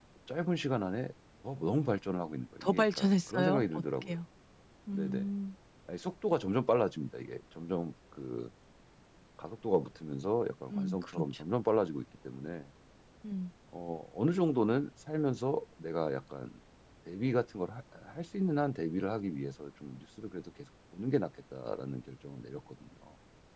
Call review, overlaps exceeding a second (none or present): present